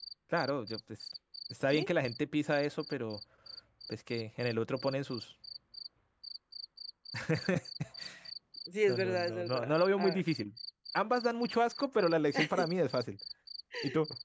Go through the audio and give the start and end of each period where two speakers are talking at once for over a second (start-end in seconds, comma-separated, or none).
8.9-10.2